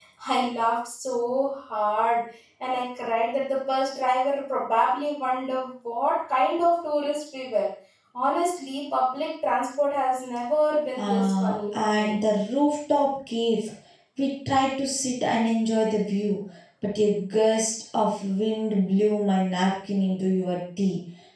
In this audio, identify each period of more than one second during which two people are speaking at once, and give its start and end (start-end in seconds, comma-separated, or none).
11.0-12.2